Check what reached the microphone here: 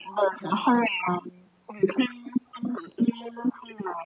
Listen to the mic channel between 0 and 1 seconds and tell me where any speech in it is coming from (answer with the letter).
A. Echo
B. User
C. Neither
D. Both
A